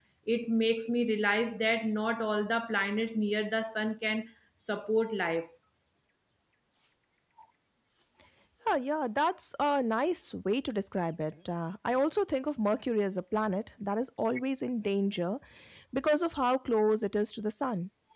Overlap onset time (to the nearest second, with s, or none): none